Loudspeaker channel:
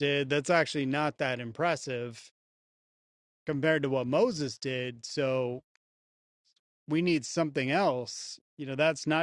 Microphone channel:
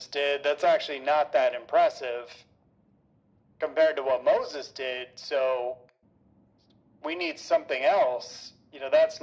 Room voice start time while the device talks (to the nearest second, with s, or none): none